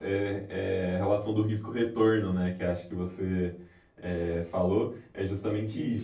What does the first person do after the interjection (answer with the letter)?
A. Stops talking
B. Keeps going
B